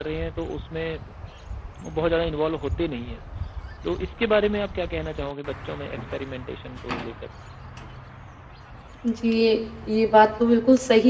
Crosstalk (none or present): none